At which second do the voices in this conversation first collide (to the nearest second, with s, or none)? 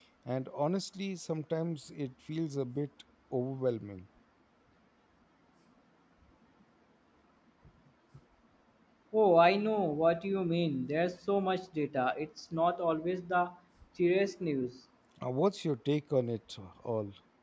none